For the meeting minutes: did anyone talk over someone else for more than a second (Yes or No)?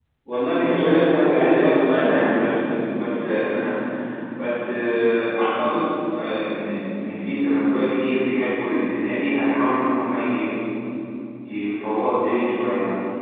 Yes